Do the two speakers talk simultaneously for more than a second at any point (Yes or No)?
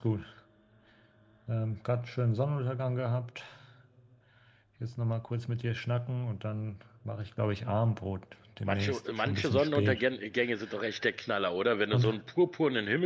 Yes